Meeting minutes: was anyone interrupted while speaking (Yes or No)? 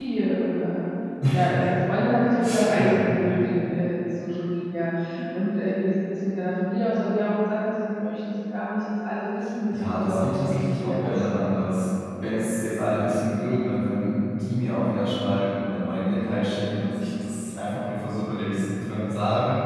Yes